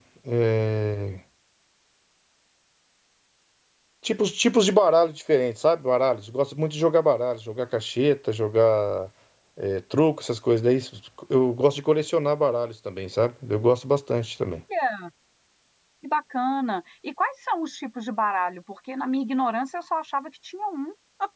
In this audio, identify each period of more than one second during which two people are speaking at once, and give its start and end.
none

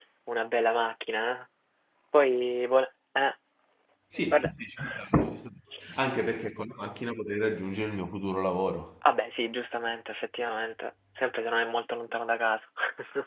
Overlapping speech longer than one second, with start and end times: none

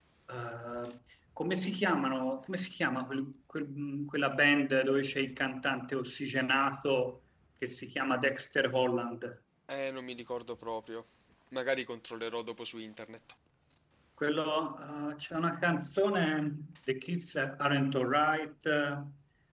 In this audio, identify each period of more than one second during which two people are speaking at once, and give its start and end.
none

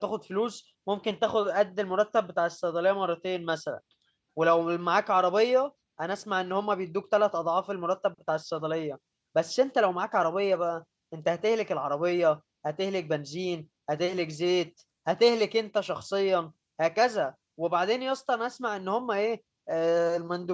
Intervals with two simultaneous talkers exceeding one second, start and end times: none

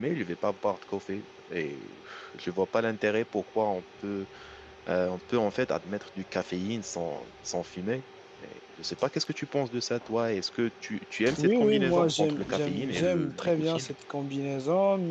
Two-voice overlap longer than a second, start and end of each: 11.4-13.9

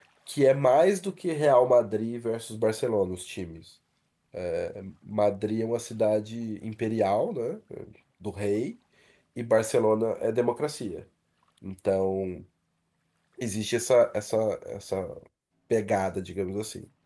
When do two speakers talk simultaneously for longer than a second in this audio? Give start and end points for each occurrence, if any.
none

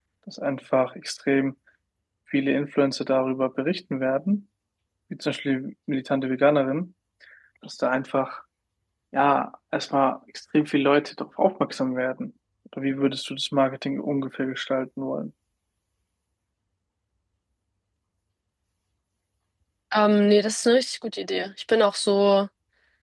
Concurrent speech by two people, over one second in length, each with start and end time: none

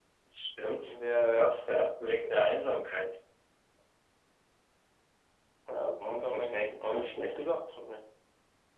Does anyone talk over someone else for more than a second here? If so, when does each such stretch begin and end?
6.1-7.5

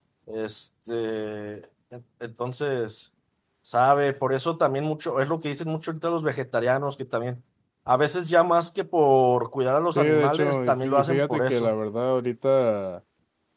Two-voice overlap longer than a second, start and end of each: 9.9-11.7

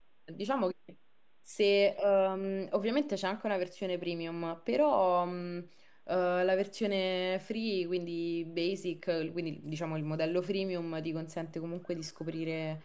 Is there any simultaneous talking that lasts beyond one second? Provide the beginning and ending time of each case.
none

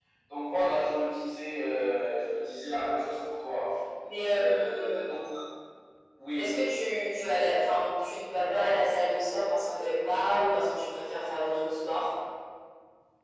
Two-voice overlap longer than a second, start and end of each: none

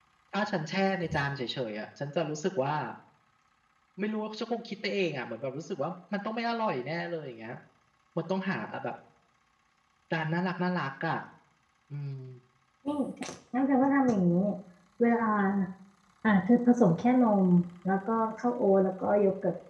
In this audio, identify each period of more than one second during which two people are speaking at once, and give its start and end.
none

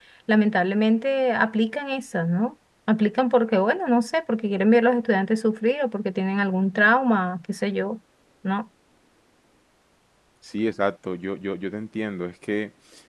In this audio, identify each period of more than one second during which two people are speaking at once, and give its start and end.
none

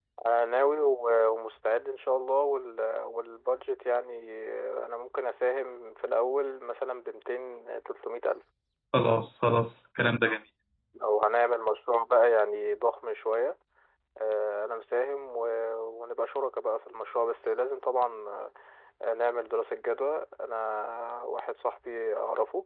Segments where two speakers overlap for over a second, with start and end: none

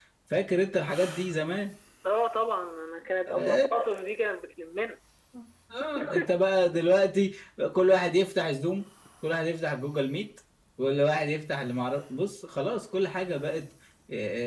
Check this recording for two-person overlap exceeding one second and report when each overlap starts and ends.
none

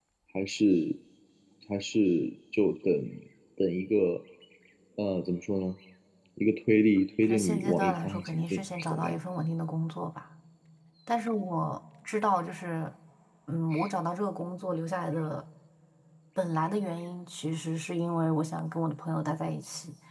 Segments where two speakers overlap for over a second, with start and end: 7.2-9.2

